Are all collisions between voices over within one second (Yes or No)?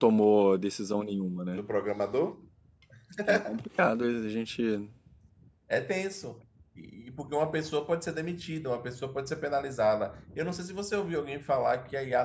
Yes